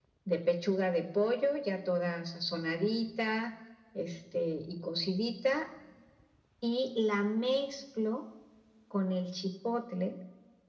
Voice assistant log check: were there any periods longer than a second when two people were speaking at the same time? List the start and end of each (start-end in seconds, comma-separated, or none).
none